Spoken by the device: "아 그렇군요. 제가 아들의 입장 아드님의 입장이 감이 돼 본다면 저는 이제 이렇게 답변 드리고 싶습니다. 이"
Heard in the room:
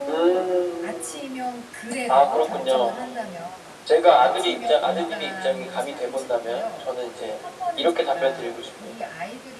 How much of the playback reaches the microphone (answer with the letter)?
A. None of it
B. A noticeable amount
B